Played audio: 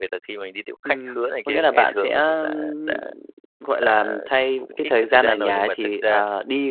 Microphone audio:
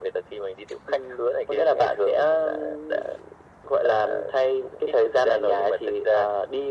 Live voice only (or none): none